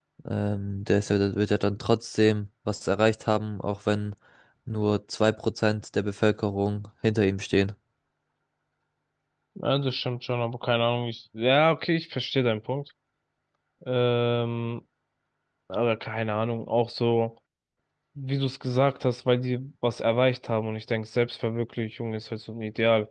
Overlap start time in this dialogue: none

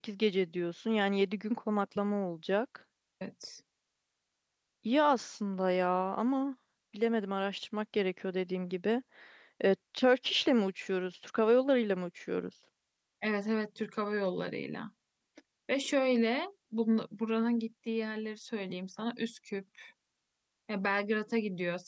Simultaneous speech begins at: none

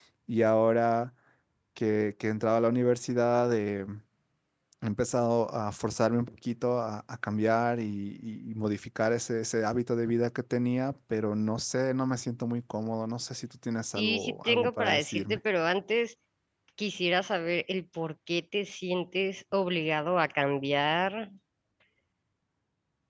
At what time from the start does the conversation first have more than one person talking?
13.9 s

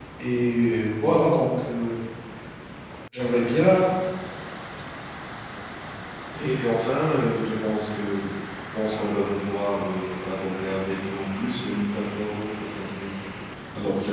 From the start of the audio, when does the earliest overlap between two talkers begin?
none

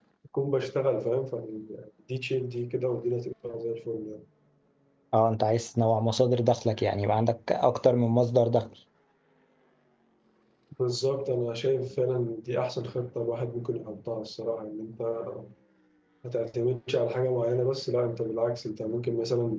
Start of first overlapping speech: none

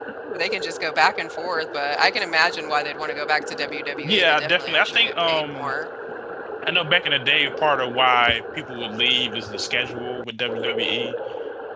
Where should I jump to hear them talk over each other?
4.0 s

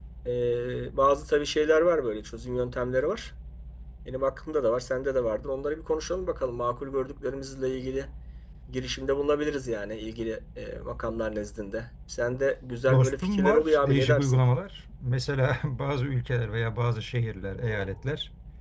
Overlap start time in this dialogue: 12.9 s

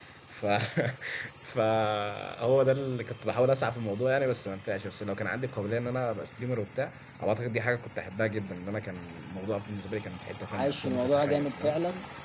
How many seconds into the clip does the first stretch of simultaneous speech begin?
10.4 s

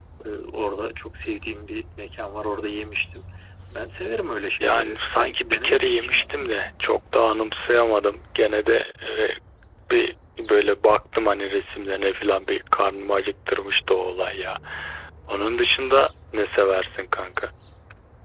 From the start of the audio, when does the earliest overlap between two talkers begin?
4.6 s

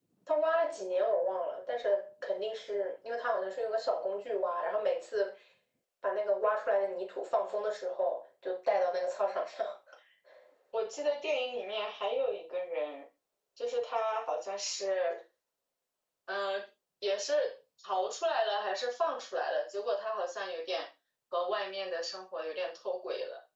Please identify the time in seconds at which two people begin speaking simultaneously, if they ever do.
none

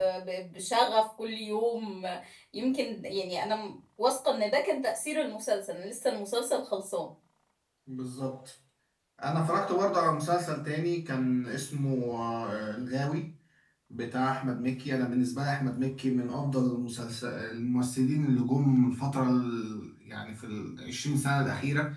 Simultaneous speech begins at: none

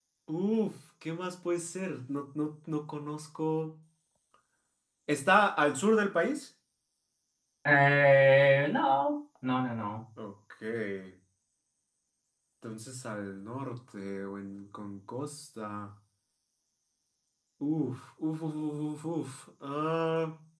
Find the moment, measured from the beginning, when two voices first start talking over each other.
none

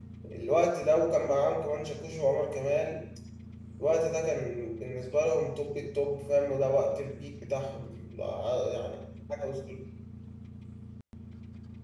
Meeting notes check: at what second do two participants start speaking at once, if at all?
none

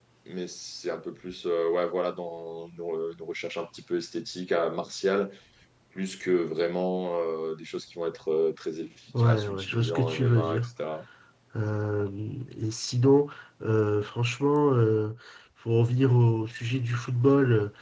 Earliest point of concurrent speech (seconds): 9.1 s

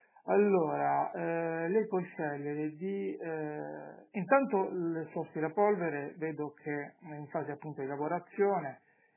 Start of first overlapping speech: none

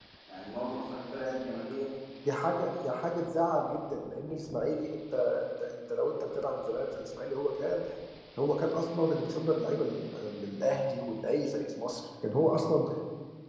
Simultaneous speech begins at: none

